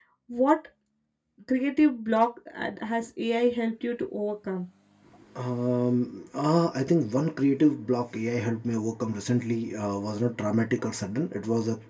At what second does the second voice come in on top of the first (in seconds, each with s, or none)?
none